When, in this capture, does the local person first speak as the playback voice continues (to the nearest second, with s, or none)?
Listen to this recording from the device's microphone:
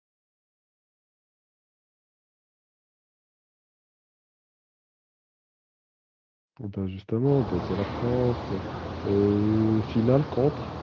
7 s